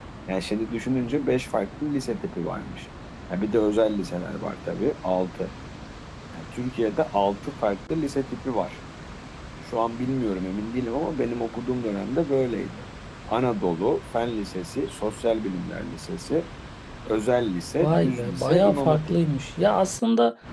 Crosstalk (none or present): present